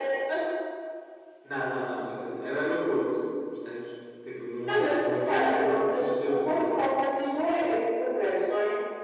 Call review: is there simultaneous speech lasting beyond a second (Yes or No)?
Yes